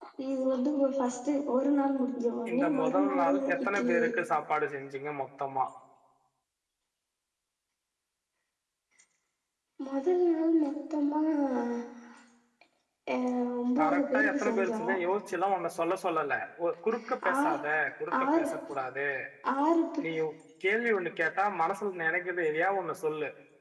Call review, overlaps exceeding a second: present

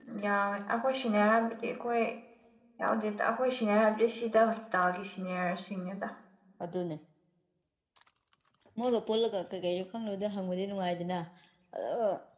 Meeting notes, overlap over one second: none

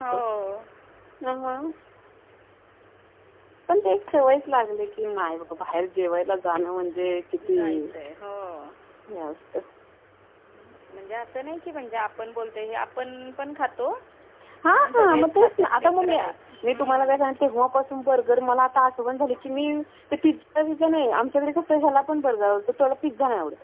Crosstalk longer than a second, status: present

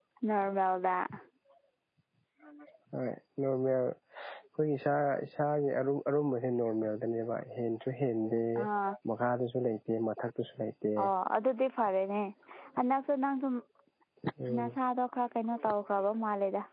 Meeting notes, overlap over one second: none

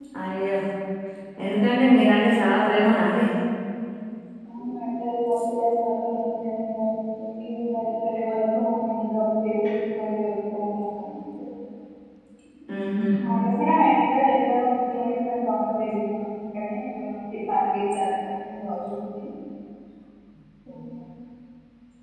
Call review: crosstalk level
none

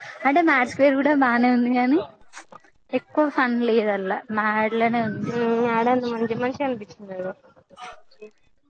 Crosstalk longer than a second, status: none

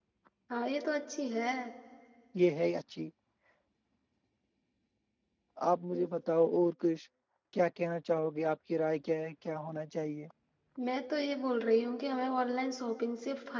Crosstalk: none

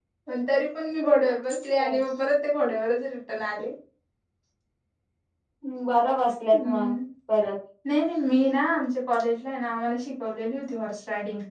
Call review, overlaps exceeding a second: none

